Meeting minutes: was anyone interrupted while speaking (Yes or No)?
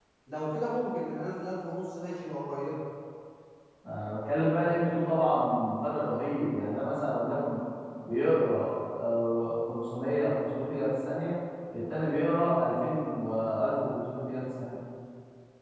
No